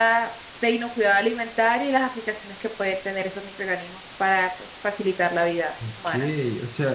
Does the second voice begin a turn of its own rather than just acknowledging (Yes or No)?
Yes